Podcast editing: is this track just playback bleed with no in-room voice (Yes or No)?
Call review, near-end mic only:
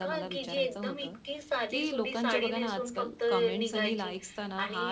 No